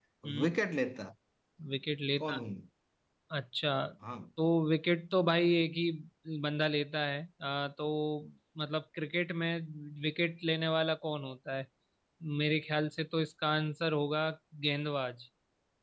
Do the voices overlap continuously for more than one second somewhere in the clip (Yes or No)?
No